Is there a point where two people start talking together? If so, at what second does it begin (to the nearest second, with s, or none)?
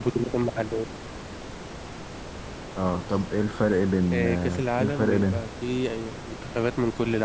4 s